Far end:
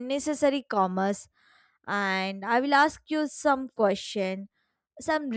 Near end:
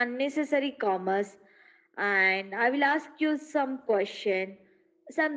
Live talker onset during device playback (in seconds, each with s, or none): none